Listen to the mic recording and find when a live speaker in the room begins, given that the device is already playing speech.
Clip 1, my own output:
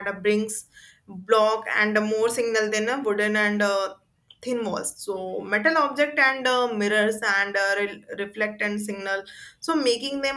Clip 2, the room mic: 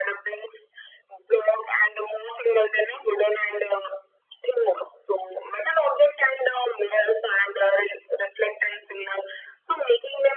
none

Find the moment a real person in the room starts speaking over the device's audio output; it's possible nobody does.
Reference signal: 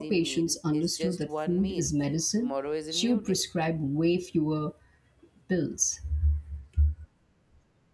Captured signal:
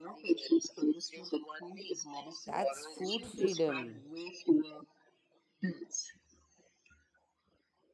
2.5 s

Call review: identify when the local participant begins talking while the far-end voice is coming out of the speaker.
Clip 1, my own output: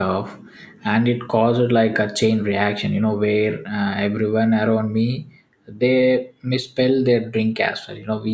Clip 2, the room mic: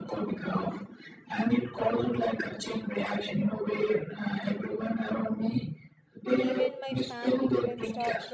6.3 s

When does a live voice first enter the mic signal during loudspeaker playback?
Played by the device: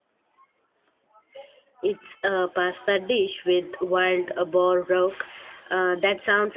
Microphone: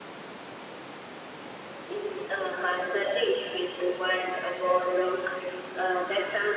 none

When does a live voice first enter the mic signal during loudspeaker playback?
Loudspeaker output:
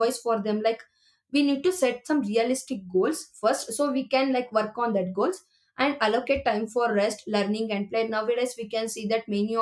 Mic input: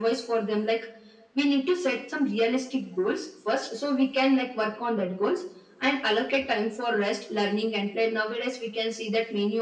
none

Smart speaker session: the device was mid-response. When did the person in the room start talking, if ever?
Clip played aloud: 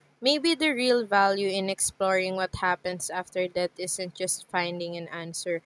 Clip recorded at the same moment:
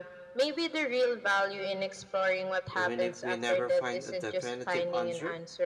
2.7 s

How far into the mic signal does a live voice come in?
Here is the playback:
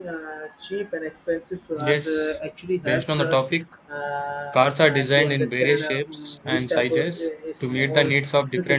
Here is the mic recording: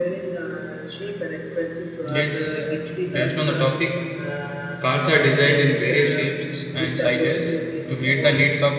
none

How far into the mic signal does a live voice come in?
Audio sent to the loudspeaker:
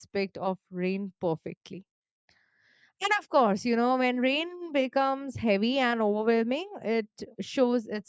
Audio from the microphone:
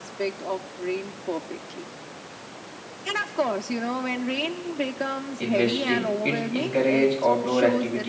5.4 s

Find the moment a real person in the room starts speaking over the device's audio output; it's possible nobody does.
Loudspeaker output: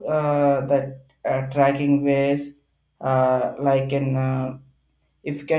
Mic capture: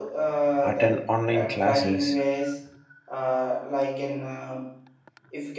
0.7 s

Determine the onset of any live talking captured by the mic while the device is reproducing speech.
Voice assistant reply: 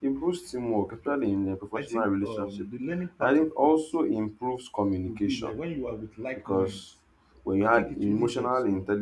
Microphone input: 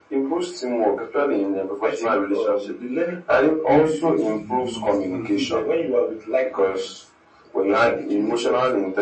3.6 s

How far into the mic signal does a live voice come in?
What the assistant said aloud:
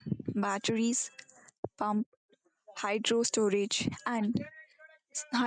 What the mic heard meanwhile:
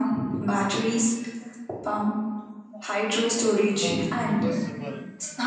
3.7 s

